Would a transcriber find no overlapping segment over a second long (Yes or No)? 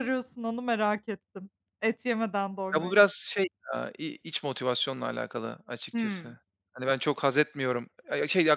Yes